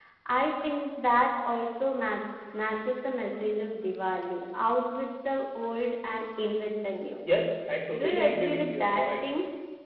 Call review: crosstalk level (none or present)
present